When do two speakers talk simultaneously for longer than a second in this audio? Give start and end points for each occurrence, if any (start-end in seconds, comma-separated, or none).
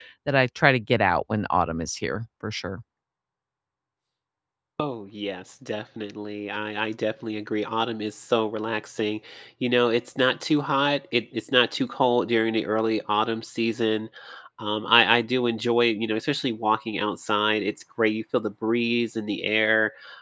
none